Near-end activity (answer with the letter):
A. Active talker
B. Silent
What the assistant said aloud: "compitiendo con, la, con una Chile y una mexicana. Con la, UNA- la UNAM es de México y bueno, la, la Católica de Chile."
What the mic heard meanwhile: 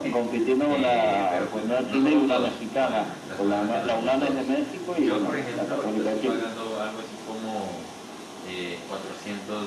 A